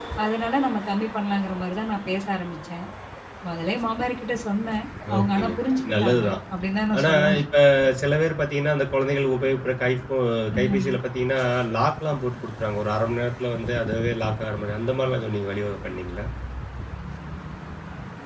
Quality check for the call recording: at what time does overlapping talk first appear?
5.2 s

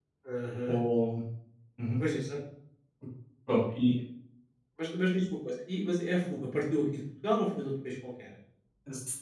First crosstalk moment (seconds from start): none

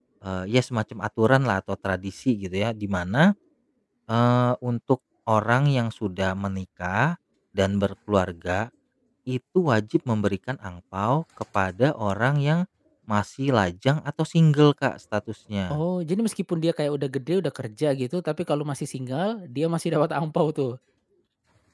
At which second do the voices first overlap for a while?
none

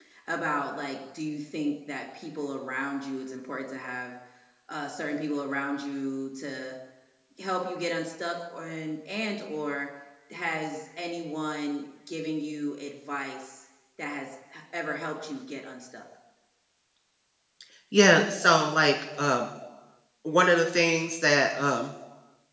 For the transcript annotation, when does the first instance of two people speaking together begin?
none

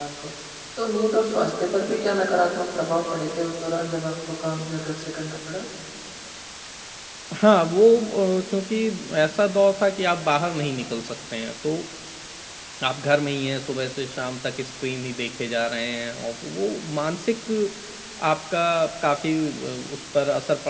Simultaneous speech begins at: none

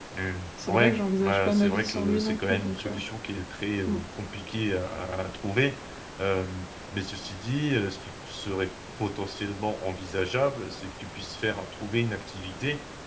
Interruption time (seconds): 0.7 s

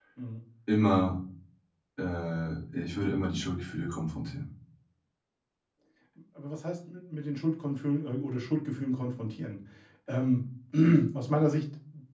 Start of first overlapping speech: none

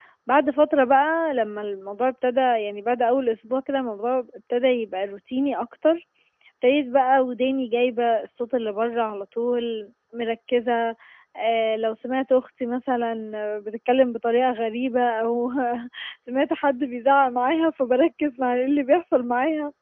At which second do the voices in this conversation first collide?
none

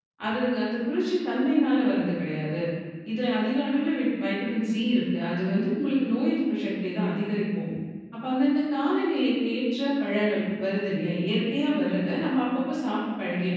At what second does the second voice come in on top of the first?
none

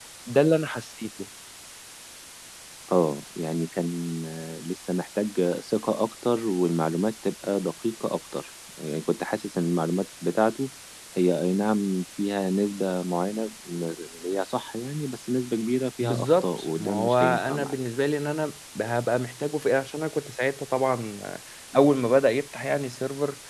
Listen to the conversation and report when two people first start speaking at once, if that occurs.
16.0 s

